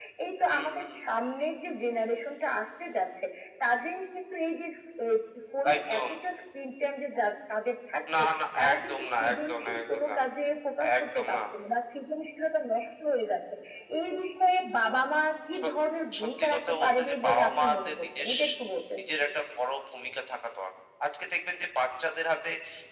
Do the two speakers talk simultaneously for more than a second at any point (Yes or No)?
Yes